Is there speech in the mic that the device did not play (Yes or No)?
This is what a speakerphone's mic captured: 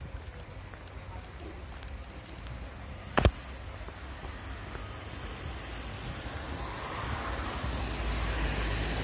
No